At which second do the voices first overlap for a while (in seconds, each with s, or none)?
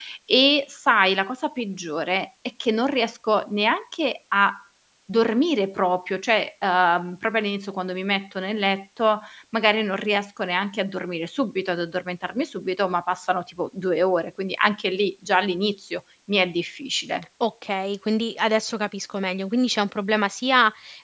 none